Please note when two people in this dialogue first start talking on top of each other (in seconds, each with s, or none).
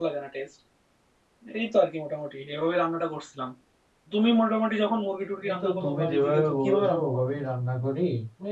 5.4 s